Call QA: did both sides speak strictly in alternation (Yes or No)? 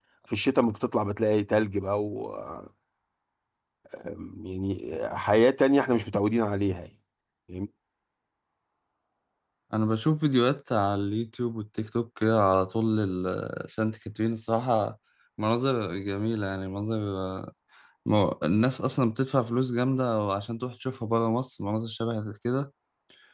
Yes